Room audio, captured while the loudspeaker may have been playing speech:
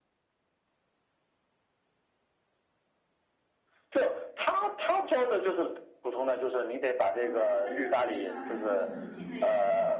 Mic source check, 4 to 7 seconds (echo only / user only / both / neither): echo only